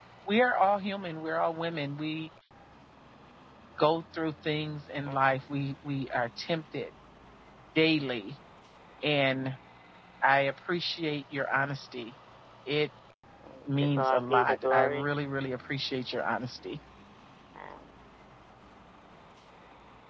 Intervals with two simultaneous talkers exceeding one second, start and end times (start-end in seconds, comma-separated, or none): 13.7-15.1